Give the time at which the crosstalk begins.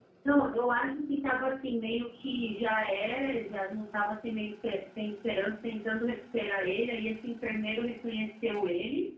none

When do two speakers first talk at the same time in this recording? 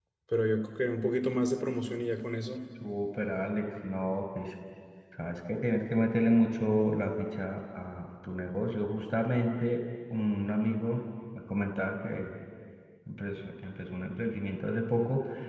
none

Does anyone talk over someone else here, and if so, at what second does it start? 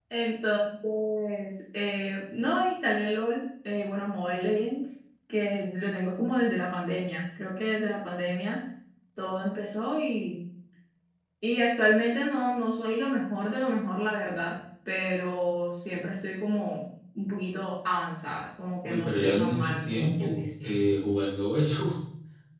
18.8 s

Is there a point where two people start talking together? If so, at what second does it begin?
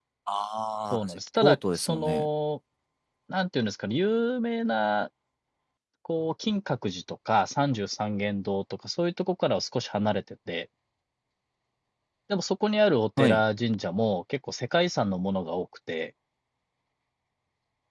0.9 s

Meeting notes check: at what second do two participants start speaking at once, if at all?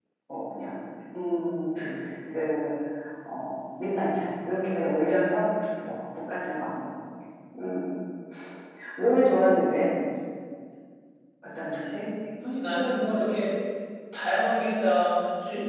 none

